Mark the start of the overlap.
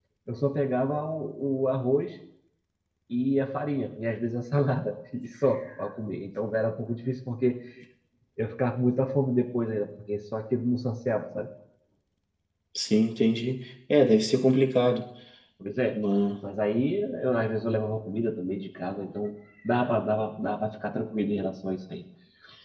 none

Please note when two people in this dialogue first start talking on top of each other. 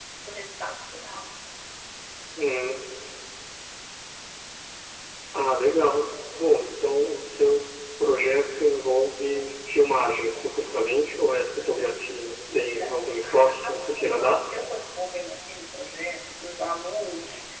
12.5 s

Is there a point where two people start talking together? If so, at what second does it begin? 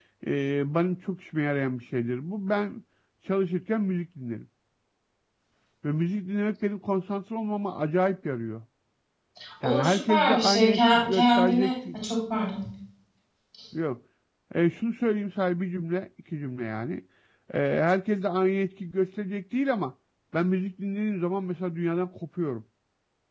9.6 s

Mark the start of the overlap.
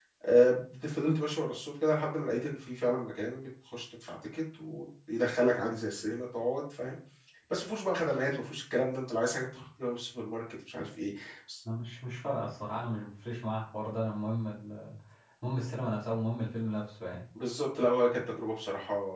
none

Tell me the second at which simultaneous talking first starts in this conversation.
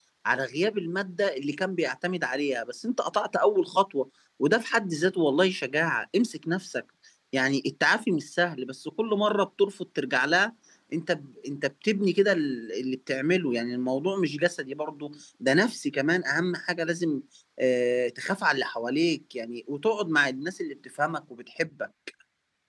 none

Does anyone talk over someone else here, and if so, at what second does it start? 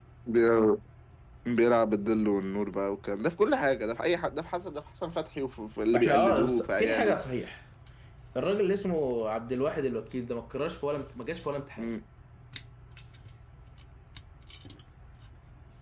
5.9 s

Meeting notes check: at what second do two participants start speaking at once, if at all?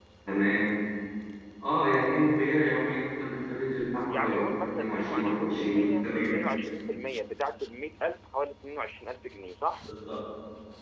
4.1 s

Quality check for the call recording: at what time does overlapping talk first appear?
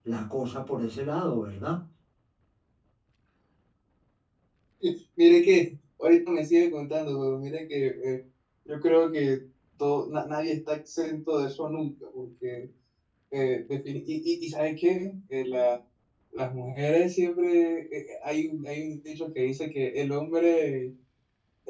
none

